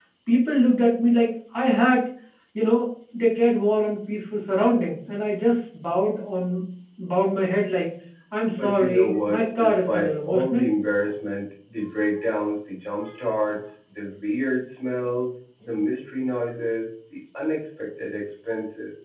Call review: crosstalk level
present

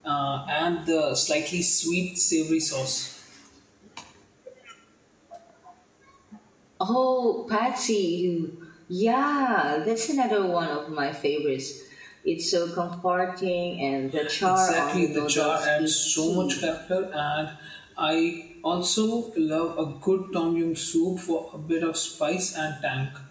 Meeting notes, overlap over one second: present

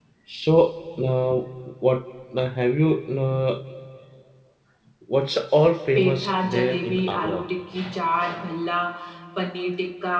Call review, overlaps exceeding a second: present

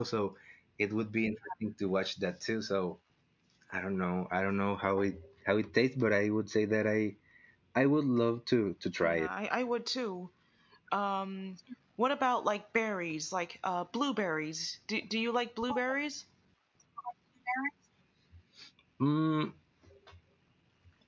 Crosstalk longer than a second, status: none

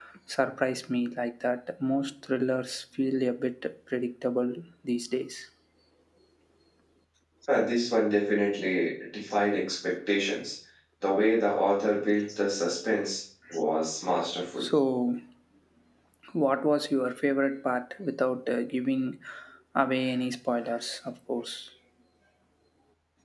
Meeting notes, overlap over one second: none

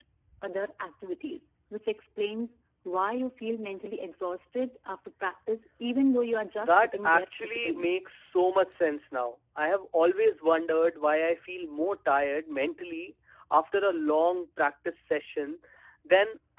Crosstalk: present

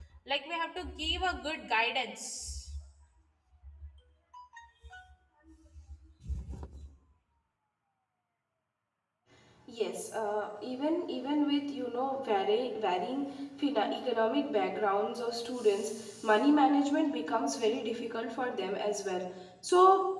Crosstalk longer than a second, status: none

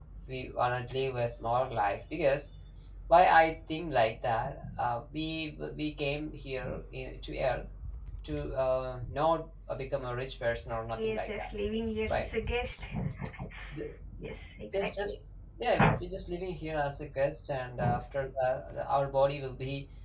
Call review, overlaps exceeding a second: none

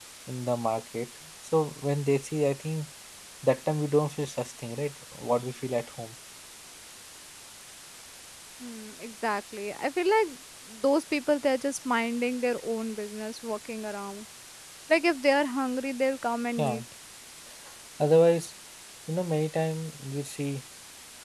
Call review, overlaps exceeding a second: none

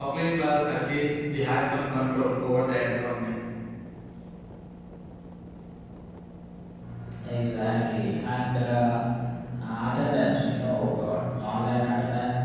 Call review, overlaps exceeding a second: none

